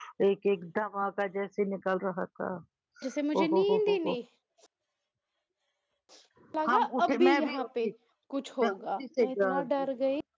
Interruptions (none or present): present